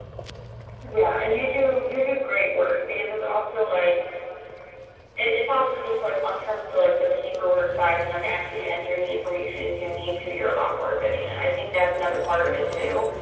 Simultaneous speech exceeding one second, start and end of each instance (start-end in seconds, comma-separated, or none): none